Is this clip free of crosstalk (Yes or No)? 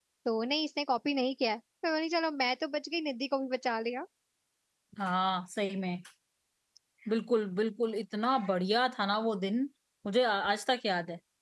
Yes